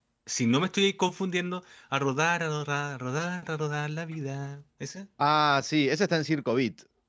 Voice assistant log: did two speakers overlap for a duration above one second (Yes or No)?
No